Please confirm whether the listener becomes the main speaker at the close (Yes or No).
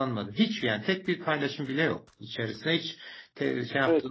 No